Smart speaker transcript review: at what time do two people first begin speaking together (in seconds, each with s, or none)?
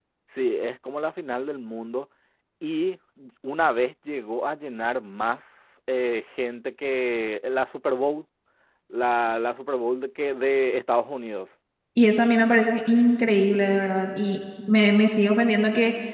none